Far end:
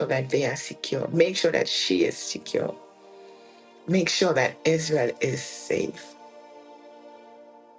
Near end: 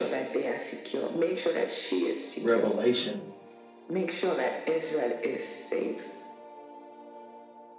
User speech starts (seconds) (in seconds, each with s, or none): 2.4 s